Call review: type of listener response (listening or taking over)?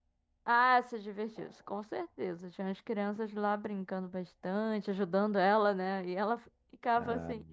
listening